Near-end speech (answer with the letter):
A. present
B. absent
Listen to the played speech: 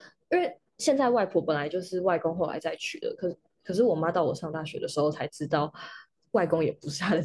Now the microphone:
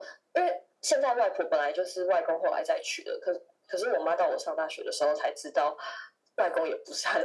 B